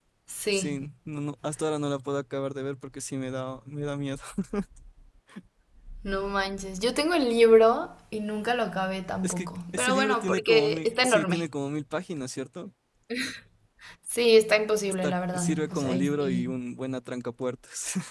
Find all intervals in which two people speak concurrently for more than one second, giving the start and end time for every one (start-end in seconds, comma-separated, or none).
9.2-11.4, 15.0-16.6